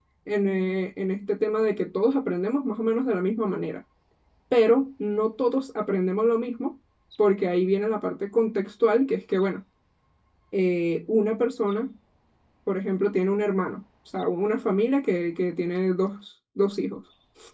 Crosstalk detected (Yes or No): No